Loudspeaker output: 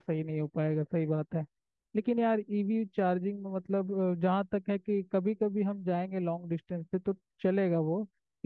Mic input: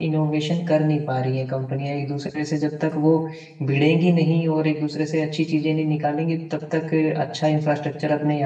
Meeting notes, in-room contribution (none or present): present